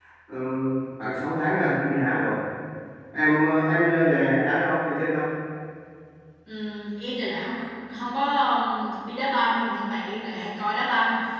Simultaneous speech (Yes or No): No